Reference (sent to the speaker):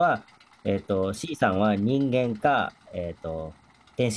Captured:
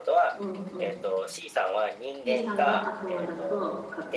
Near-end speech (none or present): present